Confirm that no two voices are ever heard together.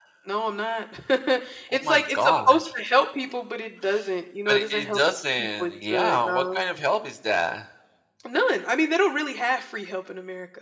No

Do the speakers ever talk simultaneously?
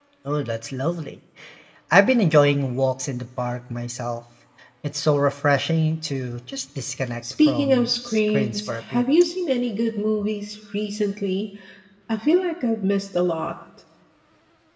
Yes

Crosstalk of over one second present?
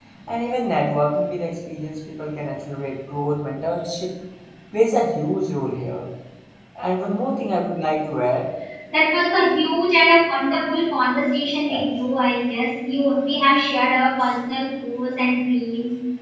No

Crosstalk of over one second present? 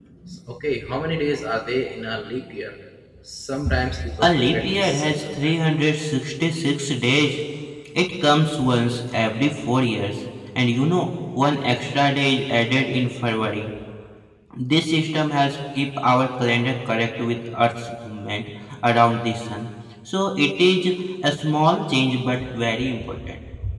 Yes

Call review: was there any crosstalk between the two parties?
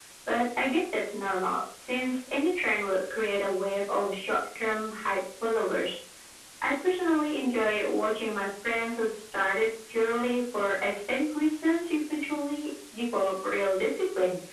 No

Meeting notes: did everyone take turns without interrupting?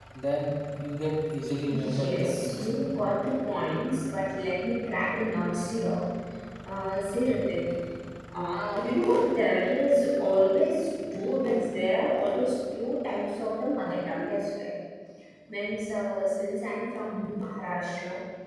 No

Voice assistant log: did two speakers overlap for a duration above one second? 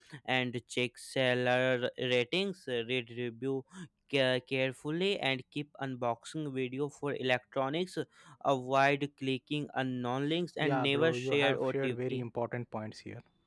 Yes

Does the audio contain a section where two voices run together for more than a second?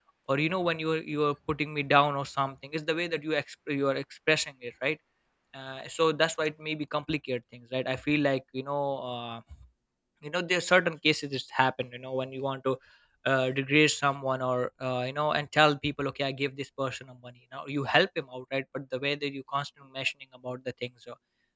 No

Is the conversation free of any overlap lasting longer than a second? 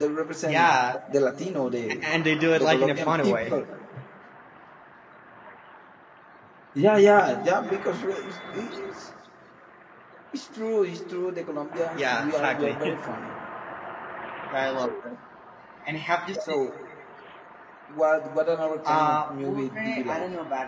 No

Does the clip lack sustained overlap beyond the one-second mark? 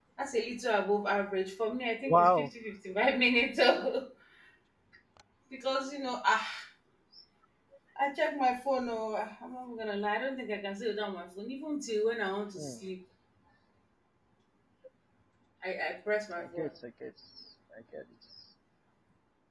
Yes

